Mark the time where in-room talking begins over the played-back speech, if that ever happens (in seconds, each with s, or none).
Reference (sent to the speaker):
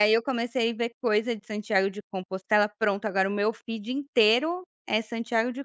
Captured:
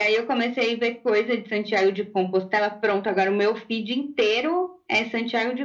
none